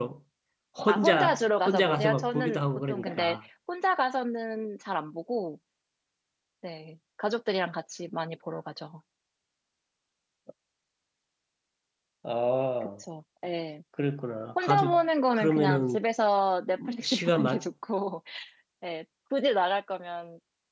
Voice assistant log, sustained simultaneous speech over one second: present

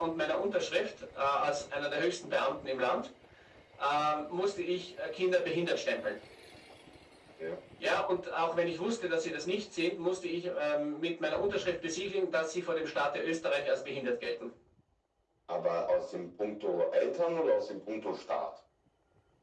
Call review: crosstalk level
none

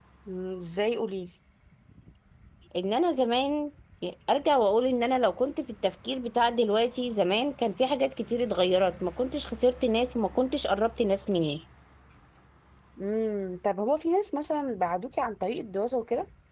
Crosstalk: none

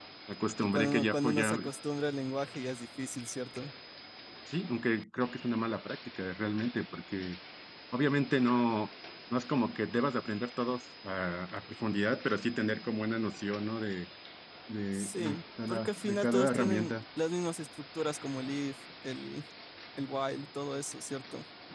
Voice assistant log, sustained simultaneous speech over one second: present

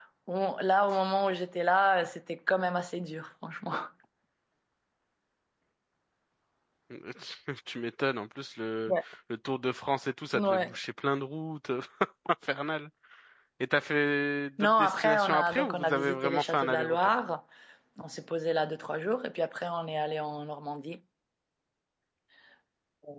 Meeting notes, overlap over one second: present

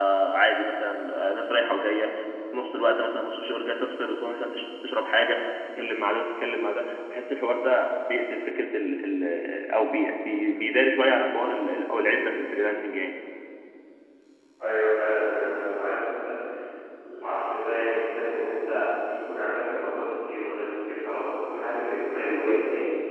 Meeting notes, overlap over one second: none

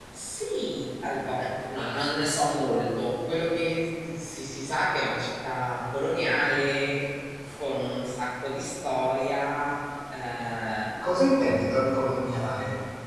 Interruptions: none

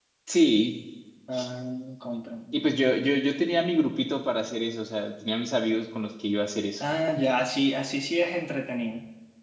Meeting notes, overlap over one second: none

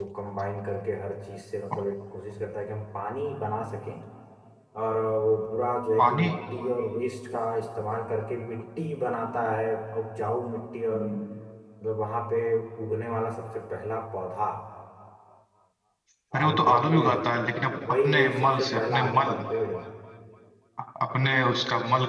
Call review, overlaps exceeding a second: present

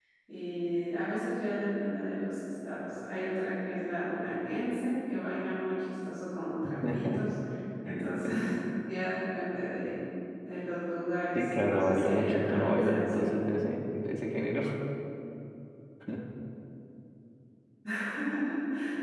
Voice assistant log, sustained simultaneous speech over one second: present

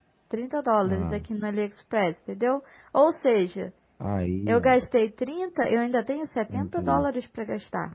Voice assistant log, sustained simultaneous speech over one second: none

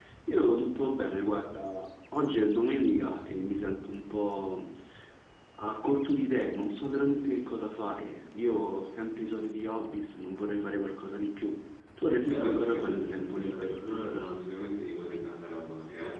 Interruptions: present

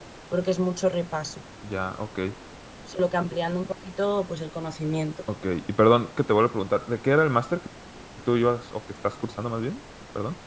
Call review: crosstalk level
none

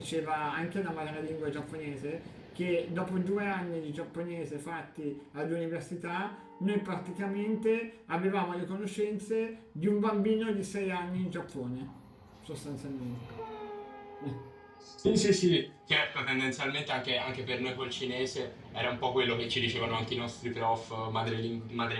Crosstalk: none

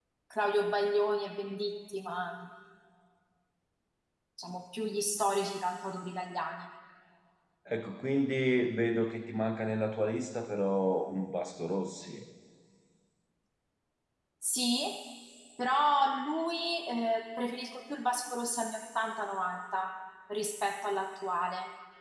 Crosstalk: none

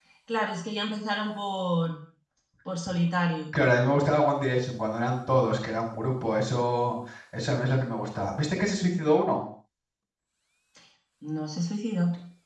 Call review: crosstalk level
none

